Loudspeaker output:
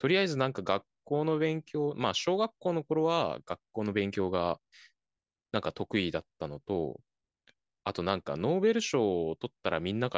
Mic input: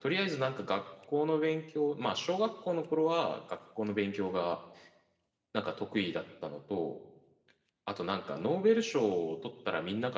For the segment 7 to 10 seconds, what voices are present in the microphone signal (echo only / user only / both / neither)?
echo only